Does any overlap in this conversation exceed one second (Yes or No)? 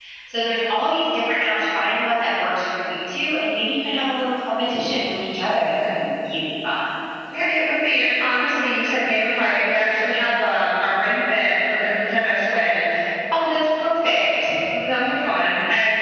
No